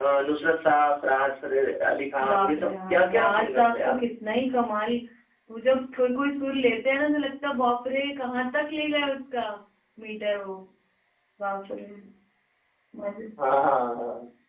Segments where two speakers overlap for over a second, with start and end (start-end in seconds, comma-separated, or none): 2.3-4.0